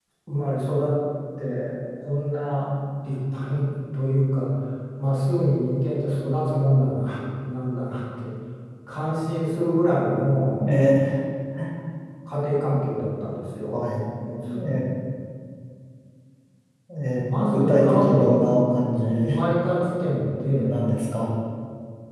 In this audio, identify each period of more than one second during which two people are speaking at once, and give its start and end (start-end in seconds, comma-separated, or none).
17.2-18.5